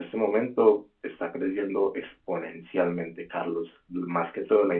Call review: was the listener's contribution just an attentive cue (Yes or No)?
Yes